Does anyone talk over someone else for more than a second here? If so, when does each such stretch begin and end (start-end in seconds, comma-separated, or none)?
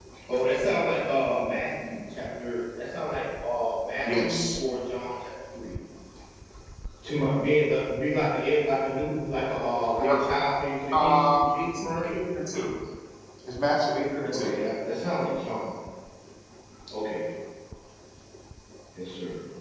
10.9-12.3